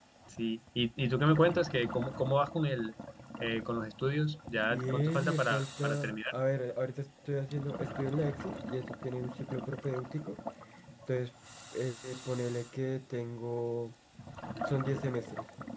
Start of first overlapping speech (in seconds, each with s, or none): 4.7 s